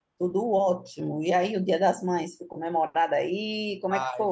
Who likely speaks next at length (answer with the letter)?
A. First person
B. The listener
B